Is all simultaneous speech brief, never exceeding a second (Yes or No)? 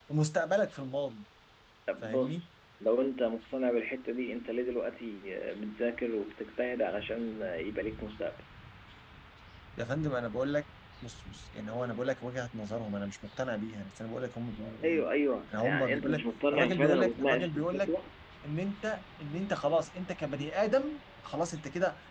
No